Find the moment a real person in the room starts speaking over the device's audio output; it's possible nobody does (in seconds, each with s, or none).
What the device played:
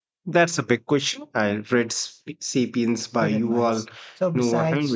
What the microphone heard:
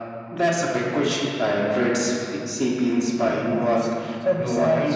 none